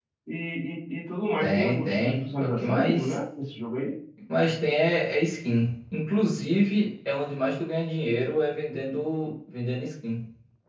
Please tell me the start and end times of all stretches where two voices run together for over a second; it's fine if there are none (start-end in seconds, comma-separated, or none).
1.4-3.2